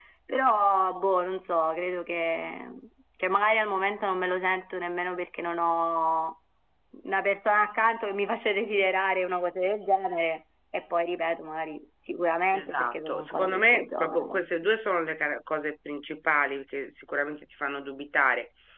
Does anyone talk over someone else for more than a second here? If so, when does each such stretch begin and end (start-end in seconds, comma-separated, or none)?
12.5-14.4